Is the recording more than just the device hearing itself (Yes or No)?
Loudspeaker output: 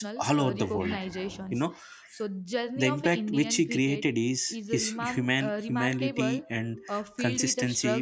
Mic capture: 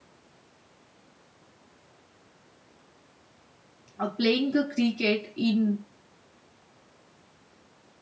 Yes